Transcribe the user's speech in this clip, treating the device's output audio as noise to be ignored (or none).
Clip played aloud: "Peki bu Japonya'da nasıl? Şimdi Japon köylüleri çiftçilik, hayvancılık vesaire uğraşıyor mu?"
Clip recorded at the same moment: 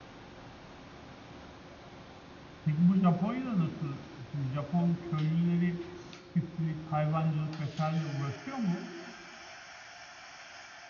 none